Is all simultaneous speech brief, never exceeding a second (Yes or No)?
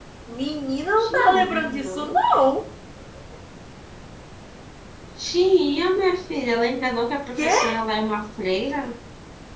No